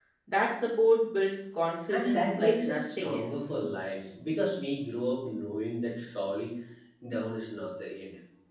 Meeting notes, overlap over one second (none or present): present